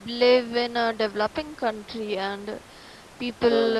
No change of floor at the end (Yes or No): Yes